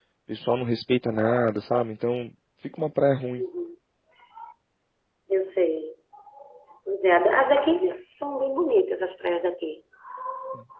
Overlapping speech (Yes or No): No